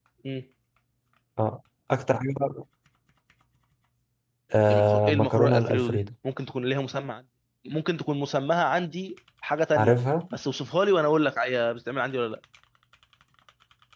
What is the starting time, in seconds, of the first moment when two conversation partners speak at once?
4.7 s

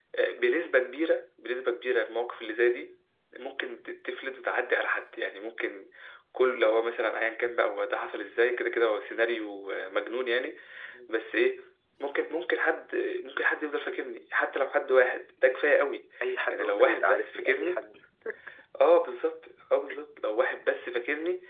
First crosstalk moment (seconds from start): 16.5 s

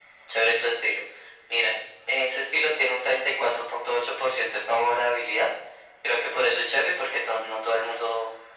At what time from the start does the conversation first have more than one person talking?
none

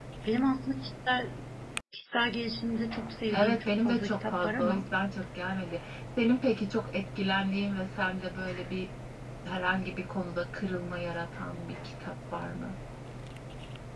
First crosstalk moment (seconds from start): 3.3 s

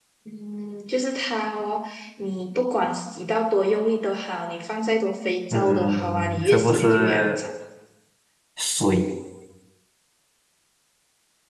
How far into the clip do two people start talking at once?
5.5 s

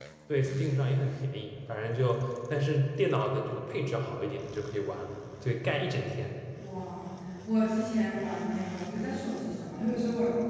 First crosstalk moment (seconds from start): none

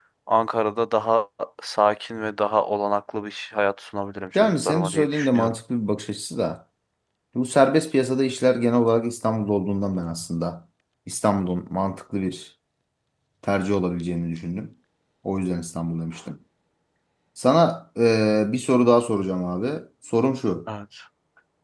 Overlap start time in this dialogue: 4.4 s

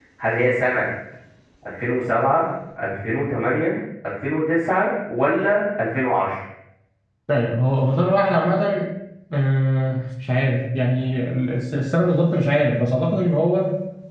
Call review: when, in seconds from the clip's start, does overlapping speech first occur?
none

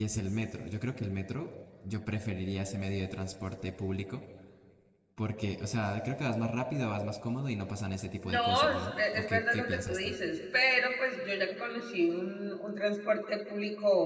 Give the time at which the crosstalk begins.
8.2 s

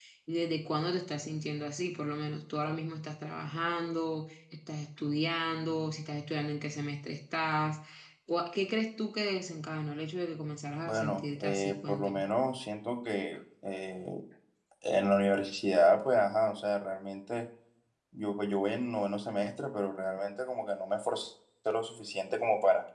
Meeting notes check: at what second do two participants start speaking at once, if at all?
10.9 s

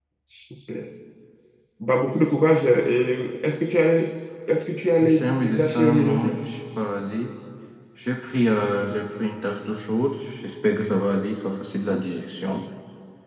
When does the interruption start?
5.1 s

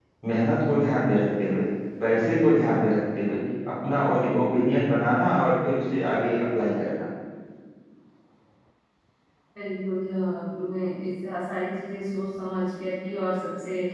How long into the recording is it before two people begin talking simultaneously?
none

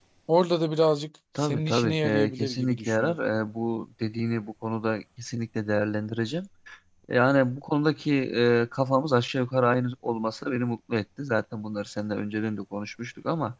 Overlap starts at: 1.4 s

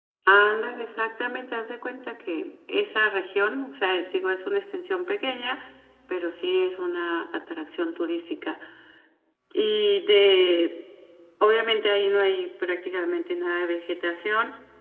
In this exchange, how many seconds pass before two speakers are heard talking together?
none

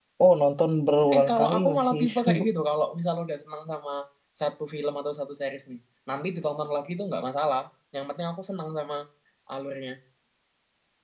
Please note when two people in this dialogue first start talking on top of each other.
1.1 s

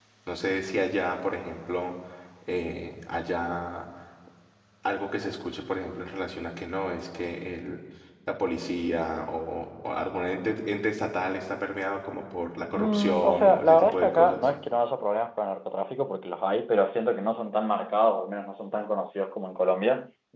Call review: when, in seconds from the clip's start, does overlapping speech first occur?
12.8 s

